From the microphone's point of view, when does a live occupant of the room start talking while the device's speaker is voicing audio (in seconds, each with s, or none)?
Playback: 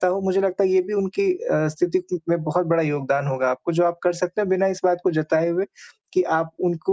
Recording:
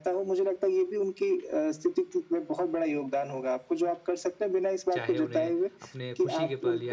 4.9 s